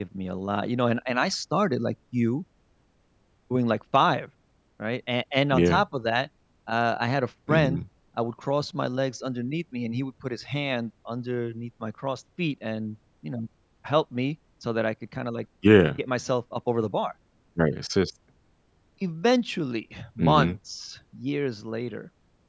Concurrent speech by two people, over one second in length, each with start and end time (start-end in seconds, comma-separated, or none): none